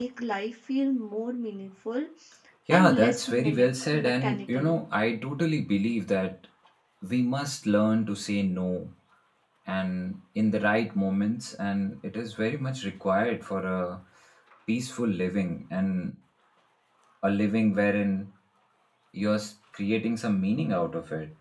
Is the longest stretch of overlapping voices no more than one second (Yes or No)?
No